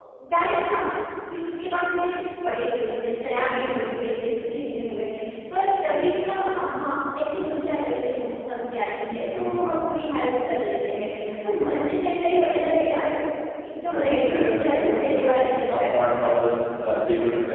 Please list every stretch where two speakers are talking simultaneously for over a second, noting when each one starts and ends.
13.9-16.3

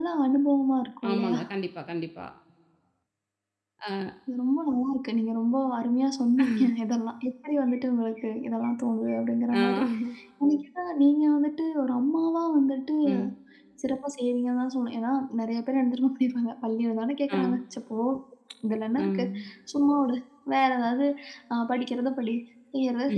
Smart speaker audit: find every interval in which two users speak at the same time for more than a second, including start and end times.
none

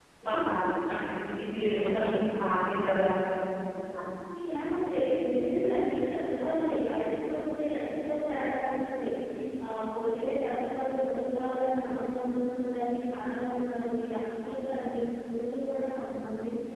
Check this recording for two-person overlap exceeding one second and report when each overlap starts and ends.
none

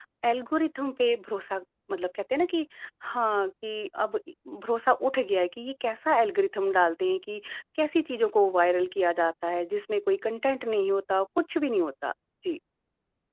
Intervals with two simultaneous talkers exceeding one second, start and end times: none

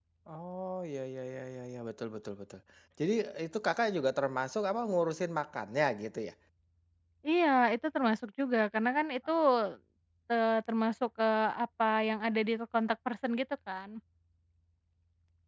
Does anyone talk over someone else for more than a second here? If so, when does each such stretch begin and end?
none

